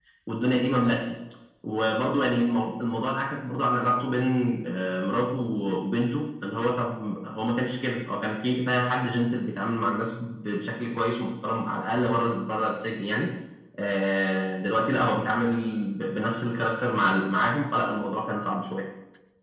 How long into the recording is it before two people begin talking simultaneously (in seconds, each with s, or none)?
none